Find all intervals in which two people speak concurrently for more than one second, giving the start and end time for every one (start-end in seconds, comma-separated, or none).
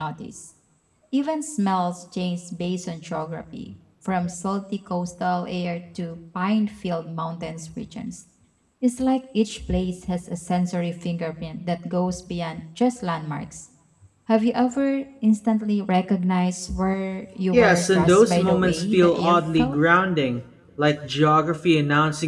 17.5-19.8